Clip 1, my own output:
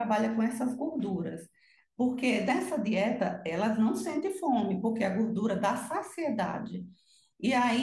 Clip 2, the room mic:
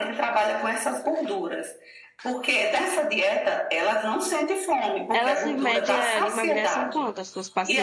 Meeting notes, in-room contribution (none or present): present